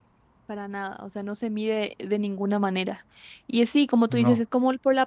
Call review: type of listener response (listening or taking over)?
listening